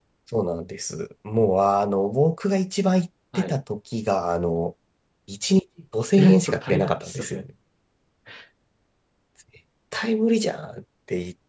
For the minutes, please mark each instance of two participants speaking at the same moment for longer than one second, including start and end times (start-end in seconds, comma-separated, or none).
6.2-7.4